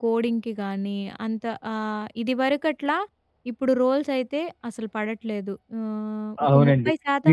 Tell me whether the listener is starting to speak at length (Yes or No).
Yes